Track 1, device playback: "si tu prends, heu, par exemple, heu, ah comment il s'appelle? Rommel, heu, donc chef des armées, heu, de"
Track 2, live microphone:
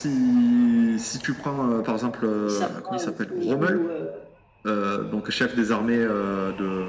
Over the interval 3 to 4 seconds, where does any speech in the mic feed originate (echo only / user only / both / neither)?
both